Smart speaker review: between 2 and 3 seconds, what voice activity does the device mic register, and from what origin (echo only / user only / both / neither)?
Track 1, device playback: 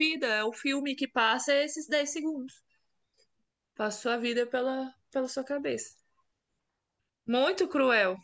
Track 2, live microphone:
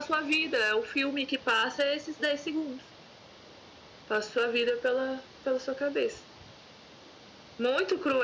echo only